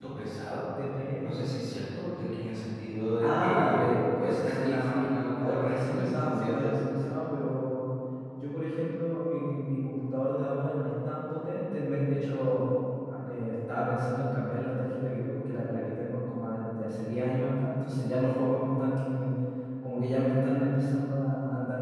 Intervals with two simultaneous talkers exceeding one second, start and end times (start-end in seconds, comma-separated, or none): 3.2-6.8